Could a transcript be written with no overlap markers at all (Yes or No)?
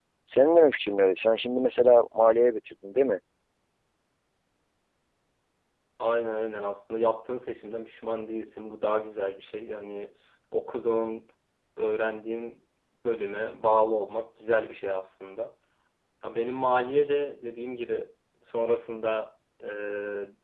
Yes